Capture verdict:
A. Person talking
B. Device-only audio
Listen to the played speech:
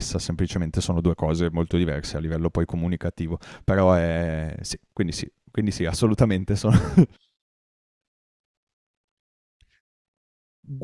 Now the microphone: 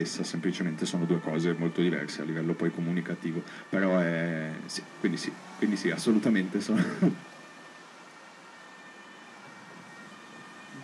B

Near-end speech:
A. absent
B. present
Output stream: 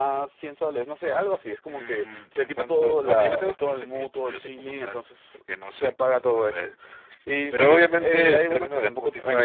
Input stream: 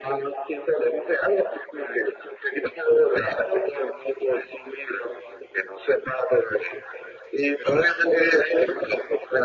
A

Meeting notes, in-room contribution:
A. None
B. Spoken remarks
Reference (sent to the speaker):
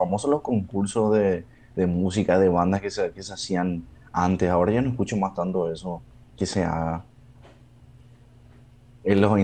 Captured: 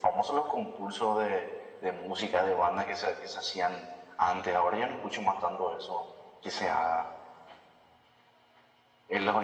A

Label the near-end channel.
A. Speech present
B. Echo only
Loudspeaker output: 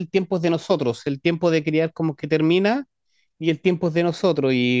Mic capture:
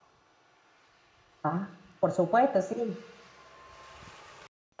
A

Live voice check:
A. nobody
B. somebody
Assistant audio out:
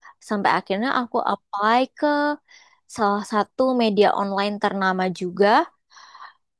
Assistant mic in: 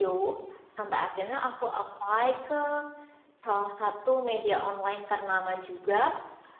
A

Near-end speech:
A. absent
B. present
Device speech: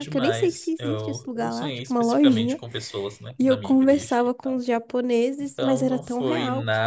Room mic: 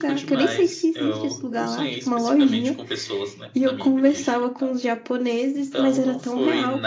A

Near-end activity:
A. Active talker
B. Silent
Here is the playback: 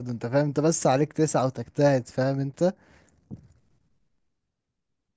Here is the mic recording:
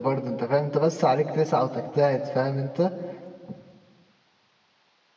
B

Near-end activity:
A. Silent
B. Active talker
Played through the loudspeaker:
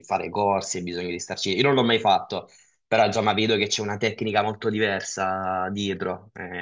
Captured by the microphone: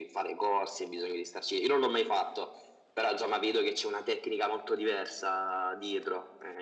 A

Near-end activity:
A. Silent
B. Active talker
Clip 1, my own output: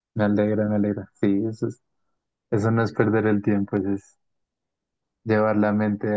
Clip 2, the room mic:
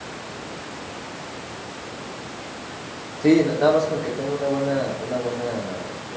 B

